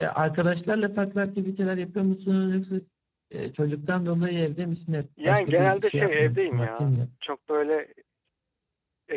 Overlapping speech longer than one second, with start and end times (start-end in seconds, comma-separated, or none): 5.2-7.0